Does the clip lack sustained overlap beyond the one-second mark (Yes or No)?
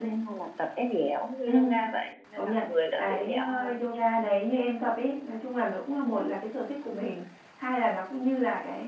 No